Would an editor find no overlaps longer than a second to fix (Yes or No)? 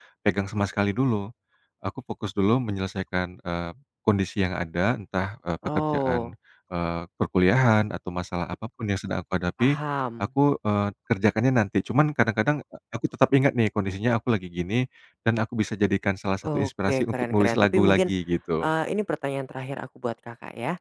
No